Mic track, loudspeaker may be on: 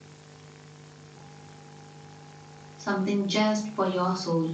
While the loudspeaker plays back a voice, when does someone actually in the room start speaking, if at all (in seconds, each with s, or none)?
2.8 s